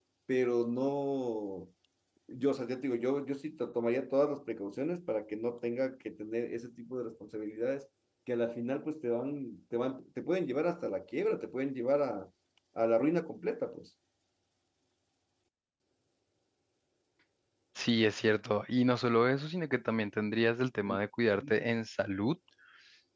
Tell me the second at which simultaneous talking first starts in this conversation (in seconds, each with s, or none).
none